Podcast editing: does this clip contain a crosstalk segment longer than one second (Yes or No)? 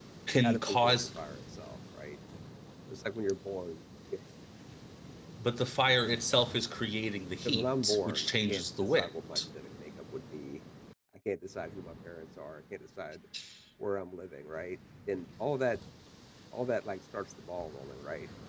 Yes